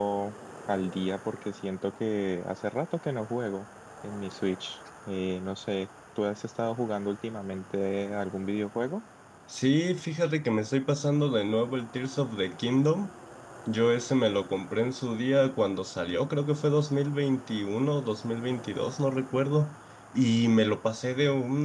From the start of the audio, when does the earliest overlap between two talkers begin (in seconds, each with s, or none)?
none